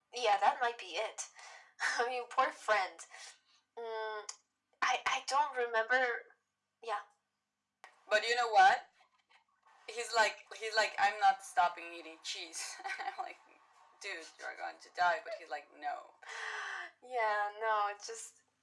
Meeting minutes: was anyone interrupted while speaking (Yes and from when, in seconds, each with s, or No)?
No